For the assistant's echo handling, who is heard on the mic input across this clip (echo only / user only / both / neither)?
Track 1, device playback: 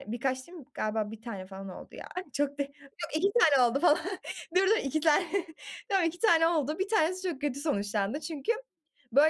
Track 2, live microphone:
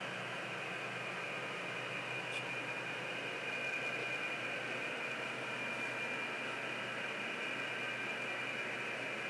neither